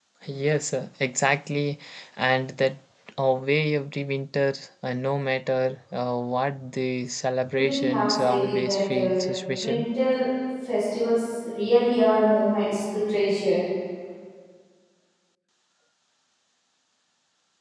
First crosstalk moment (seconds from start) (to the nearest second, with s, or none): 8 s